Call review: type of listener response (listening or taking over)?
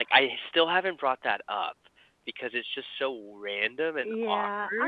taking over